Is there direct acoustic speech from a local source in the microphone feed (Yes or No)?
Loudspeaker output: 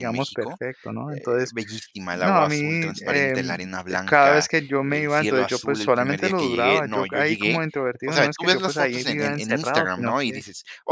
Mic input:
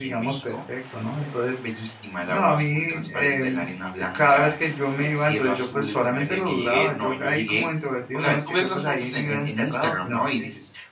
No